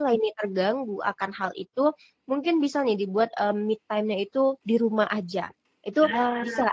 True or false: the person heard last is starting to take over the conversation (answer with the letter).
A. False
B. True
A